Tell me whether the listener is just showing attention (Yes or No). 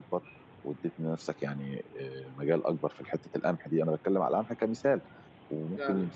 Yes